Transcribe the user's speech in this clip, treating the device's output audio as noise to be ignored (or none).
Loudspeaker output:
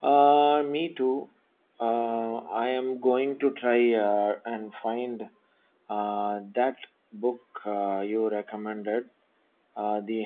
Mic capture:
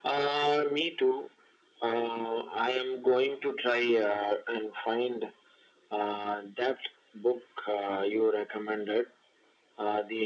none